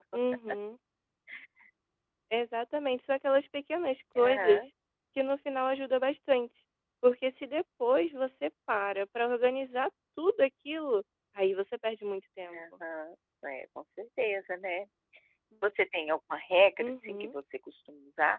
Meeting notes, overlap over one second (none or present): none